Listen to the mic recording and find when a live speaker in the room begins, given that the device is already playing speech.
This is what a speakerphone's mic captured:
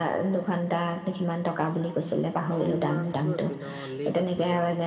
3 s

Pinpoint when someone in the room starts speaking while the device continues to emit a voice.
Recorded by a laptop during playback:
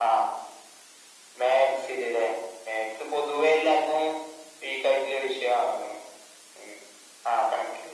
none

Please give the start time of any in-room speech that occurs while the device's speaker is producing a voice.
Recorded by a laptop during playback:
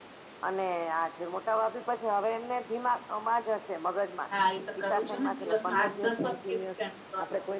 4 s

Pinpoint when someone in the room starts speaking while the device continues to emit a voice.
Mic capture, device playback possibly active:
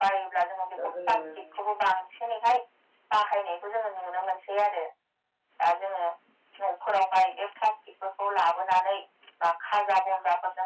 1 s

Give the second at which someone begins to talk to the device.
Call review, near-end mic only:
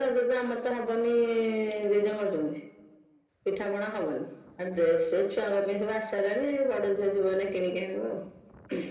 none

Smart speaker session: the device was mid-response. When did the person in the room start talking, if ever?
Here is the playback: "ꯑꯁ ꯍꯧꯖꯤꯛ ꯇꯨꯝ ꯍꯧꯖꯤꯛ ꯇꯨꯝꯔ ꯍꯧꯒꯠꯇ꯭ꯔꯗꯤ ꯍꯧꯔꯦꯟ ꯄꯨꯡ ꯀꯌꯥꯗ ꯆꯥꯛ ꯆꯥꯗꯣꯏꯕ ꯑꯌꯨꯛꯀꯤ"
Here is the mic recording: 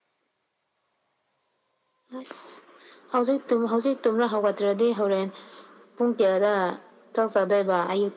none

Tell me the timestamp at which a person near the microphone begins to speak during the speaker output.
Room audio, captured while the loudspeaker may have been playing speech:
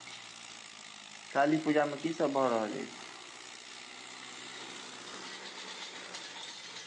1 s

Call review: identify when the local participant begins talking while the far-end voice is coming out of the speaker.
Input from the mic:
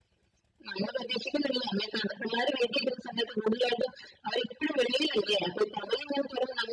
none

